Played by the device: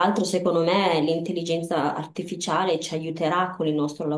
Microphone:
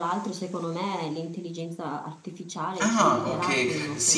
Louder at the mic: user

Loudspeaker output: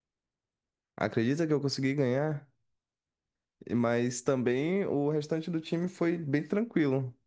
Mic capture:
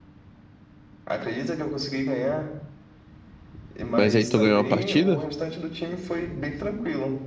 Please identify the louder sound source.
user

